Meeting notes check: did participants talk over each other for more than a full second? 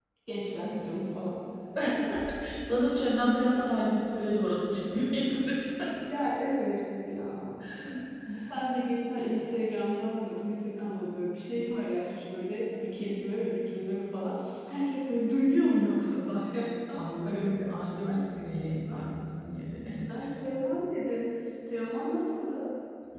No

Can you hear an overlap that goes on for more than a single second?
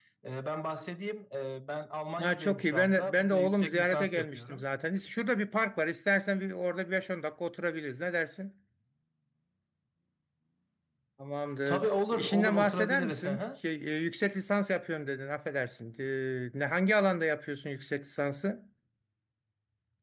Yes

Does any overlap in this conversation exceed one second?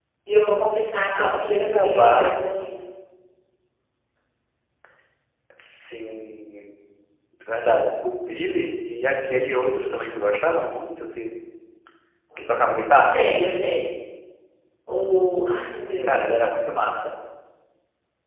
Yes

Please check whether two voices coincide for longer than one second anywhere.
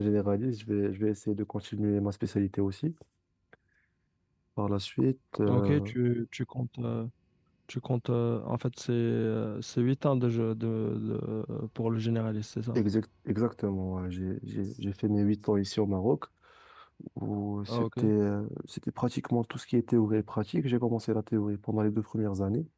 No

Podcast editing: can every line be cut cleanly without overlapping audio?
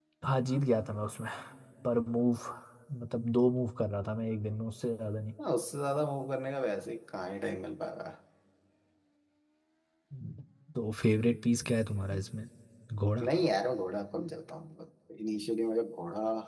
Yes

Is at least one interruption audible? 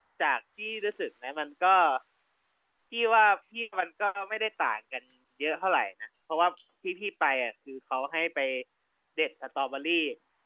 No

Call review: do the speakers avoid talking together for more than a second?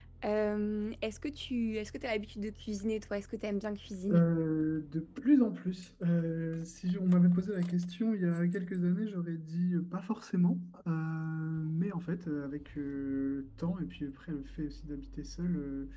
Yes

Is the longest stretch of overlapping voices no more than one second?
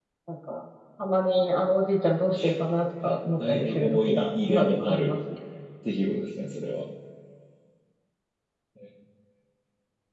No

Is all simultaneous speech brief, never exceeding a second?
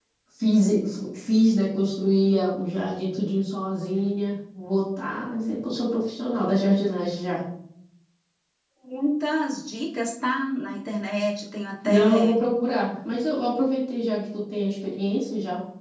Yes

